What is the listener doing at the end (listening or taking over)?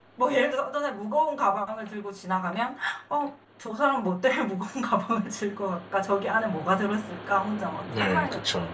taking over